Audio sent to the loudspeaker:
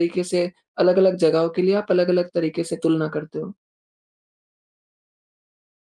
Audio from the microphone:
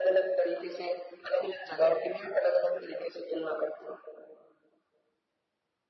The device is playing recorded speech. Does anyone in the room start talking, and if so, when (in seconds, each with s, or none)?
none